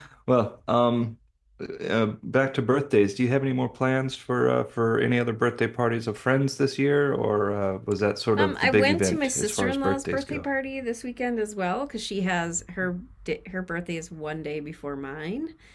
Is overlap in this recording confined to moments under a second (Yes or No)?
No